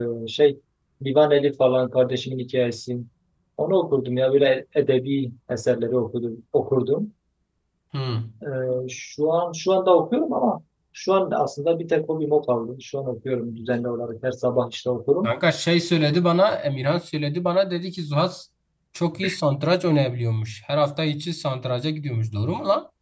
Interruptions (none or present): none